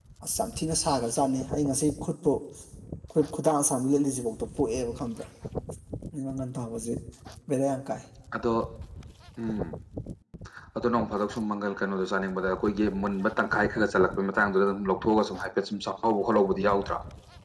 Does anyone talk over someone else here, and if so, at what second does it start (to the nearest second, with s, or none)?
none